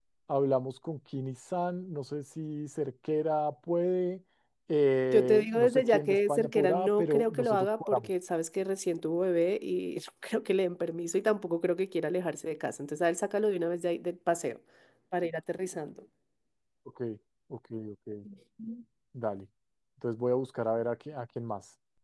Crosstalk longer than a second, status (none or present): present